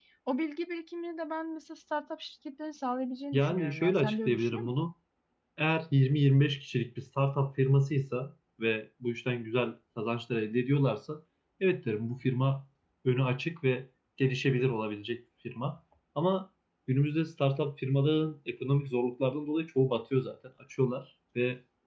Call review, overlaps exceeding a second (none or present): present